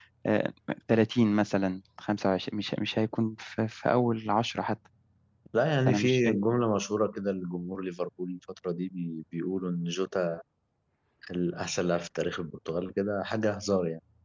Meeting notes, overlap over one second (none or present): none